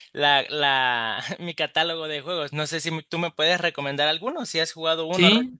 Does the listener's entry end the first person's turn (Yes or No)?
Yes